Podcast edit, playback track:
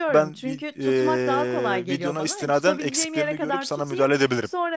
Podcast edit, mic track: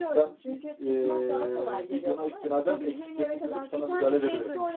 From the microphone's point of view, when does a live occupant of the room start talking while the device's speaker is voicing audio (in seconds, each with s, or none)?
3.7 s